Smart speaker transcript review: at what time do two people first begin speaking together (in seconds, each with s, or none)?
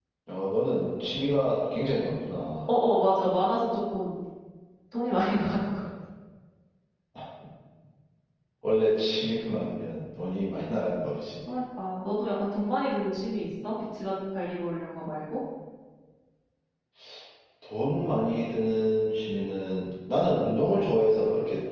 none